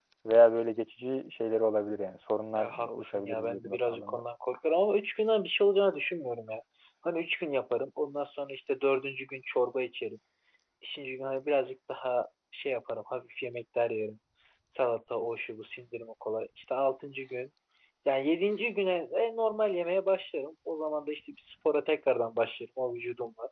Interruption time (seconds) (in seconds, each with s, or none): 2.6 s